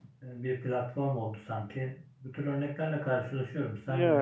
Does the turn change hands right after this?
Yes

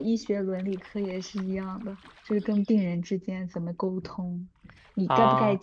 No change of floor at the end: Yes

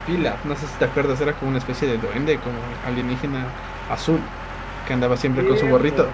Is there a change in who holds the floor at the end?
Yes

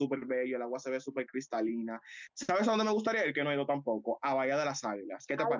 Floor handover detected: Yes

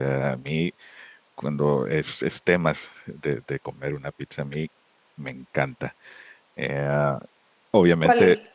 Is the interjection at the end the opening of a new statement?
No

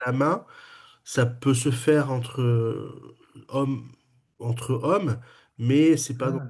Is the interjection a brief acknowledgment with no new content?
Yes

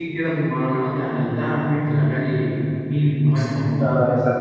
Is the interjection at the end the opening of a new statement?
Yes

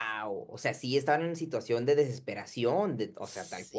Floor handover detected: Yes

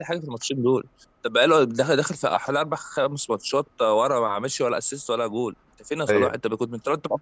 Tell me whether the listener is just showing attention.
Yes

